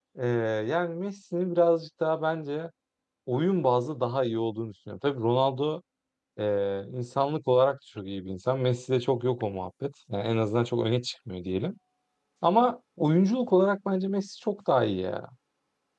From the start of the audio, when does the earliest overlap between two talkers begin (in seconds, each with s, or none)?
none